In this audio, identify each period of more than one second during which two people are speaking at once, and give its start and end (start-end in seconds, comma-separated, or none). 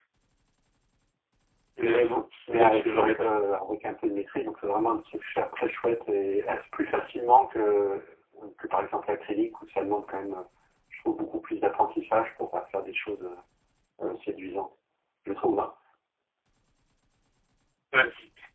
1.8-3.1